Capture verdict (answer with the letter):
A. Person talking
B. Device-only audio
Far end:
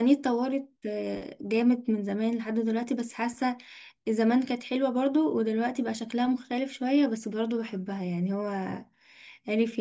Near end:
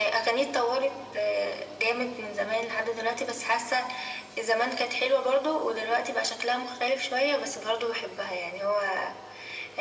B